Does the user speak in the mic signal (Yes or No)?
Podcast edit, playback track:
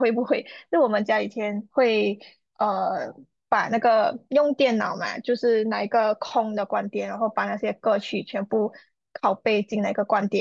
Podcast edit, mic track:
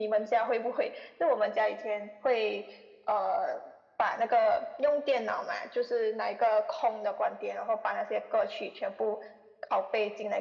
No